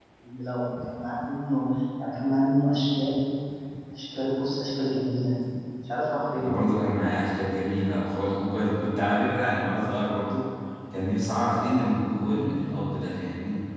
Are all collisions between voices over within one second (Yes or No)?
Yes